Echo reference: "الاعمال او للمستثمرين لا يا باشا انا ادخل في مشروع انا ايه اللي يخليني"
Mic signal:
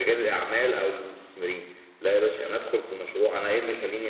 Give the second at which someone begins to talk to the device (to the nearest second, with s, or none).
none